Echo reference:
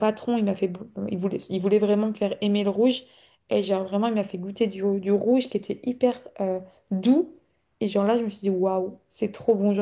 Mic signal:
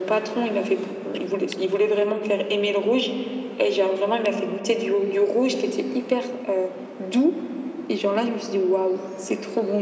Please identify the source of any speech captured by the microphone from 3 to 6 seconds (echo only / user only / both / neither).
echo only